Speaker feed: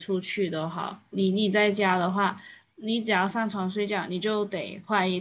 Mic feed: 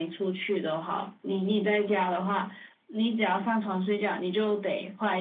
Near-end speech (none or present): none